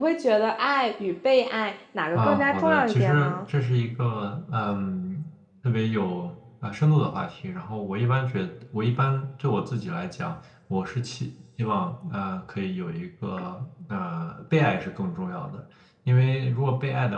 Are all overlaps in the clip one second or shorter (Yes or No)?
No